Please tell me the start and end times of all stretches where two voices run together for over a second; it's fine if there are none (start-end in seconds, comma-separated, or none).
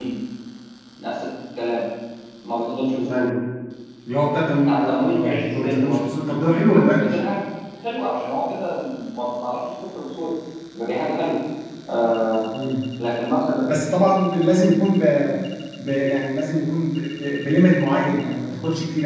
4.7-6.0